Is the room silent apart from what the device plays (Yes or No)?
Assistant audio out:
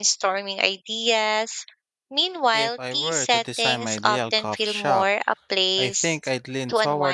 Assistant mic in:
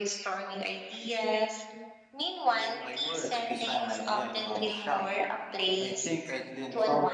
Yes